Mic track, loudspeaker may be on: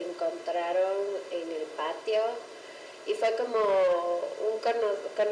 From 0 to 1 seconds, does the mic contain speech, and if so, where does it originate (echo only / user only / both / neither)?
echo only